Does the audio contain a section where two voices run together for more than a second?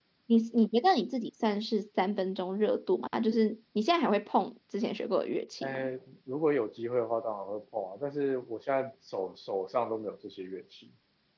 No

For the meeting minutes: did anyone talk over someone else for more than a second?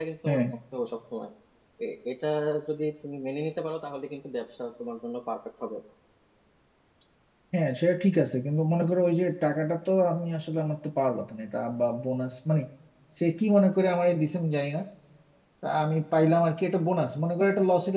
No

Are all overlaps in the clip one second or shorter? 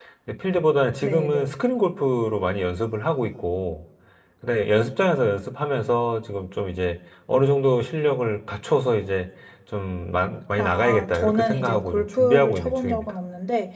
No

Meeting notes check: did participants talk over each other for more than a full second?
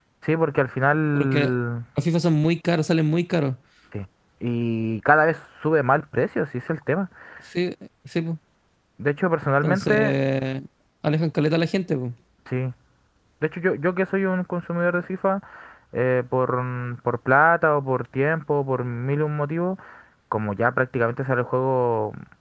No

